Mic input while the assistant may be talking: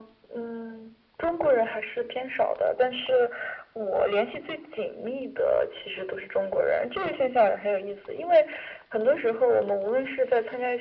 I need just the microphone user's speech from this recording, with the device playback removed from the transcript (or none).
none